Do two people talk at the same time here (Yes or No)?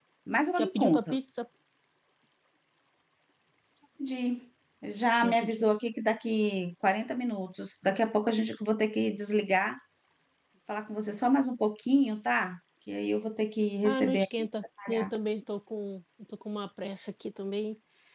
Yes